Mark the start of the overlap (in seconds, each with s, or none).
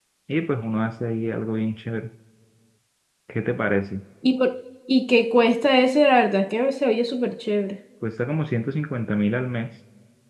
none